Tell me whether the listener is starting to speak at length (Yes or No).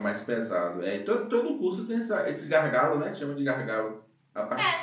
Yes